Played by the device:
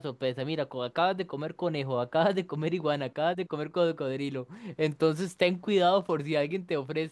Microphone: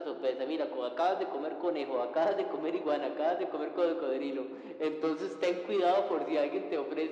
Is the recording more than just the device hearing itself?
No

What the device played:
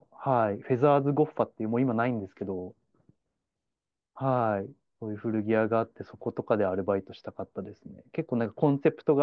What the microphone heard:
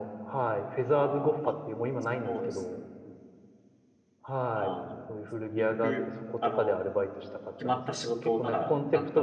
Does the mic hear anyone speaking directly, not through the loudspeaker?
Yes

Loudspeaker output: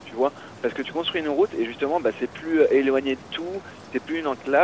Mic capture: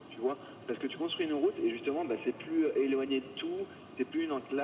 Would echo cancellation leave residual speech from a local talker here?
No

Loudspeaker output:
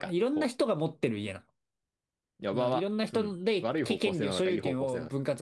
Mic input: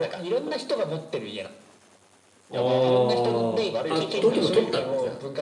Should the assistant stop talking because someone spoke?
Yes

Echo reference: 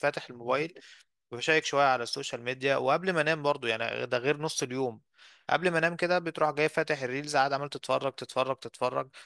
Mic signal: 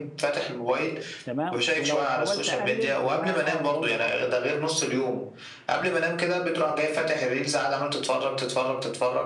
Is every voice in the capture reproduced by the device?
No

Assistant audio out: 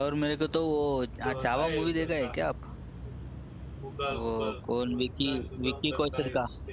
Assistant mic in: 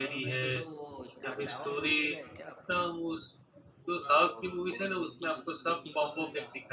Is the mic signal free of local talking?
No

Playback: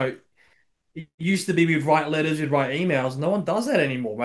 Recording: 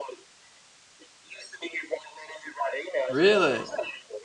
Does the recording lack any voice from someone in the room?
No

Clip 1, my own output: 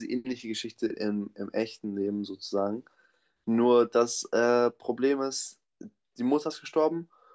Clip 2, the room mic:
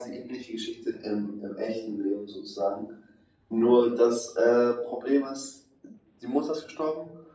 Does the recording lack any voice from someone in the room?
Yes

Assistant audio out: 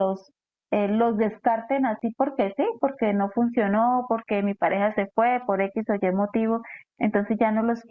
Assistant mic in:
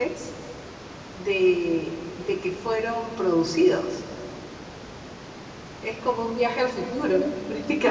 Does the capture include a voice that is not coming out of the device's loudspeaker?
Yes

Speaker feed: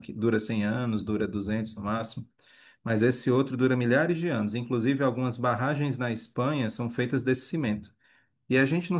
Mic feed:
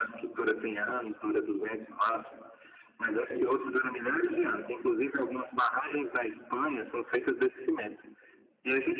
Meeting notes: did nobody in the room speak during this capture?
Yes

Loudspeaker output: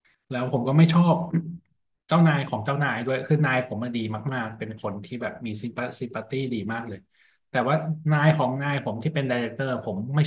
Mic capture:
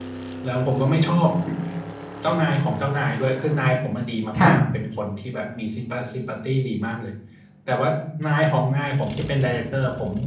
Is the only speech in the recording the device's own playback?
No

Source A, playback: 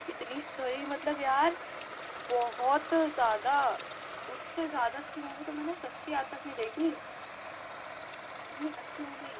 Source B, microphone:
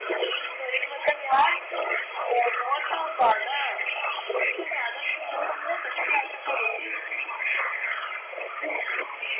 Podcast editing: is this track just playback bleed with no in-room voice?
Yes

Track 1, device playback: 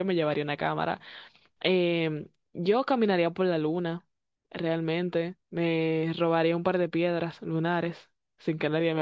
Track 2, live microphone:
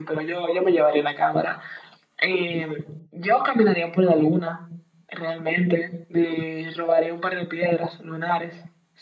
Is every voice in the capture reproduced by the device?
Yes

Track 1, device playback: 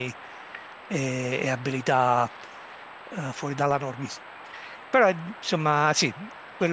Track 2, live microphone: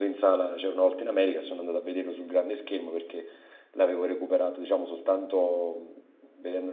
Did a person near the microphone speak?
Yes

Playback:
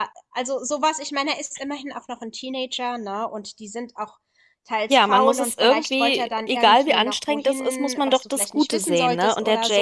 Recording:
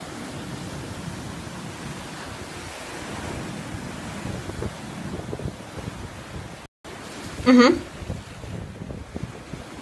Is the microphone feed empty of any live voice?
No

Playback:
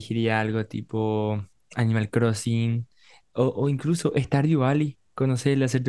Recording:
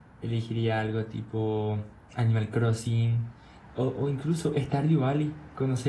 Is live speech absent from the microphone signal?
Yes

